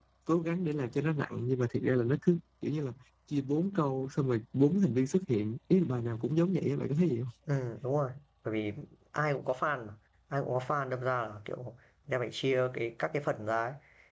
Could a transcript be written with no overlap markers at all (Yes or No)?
Yes